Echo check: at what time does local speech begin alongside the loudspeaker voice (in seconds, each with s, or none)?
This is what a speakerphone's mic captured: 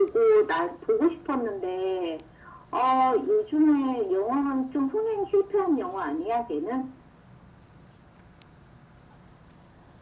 none